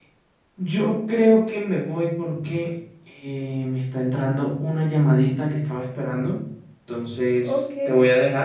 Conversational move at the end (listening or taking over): listening